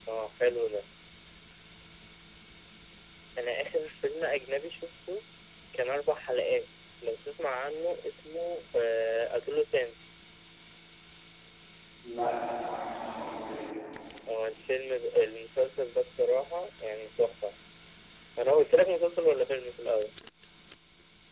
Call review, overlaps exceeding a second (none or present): none